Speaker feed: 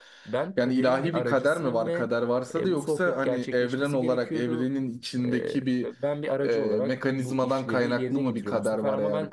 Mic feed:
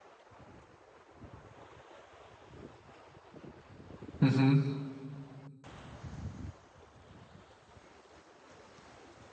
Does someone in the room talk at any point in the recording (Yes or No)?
Yes